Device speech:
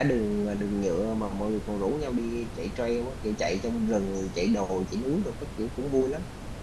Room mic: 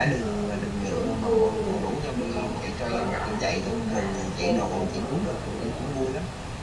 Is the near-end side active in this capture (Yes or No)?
Yes